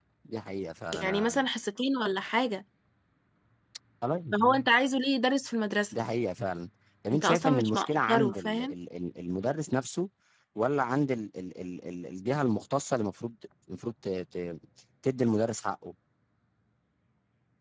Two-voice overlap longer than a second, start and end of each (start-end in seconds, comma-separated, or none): 7.1-8.7